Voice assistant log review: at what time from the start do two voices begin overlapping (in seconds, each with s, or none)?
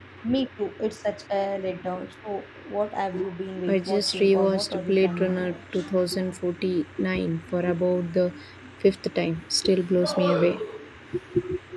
3.7 s